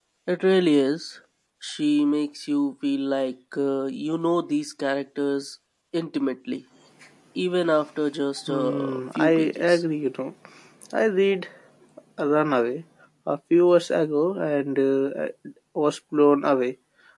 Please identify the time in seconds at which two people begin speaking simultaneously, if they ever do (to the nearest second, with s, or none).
8 s